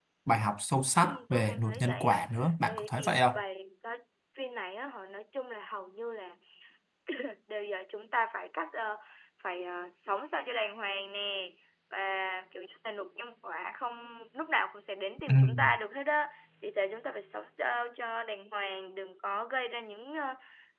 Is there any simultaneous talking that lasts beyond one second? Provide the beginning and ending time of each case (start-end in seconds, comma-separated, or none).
1.0-3.4